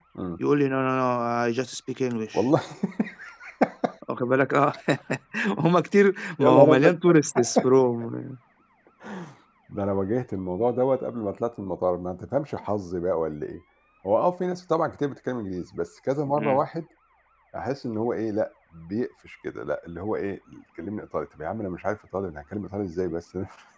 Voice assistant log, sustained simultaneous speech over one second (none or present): none